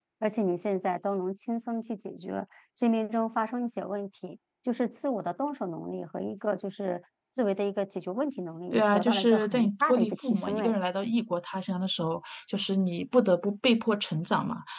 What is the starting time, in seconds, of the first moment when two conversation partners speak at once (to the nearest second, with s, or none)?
9 s